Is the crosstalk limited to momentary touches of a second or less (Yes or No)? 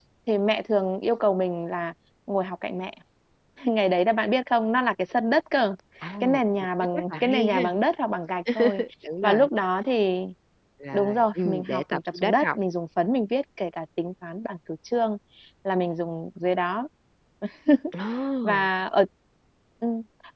No